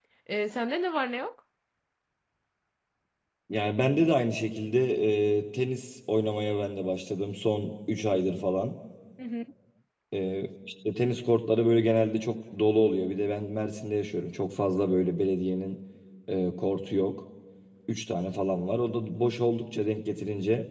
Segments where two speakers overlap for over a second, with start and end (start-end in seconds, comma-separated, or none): none